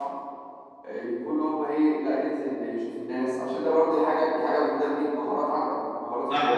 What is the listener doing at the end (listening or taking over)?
taking over